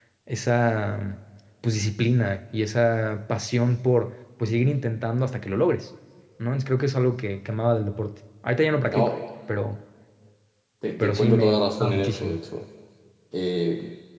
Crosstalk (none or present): present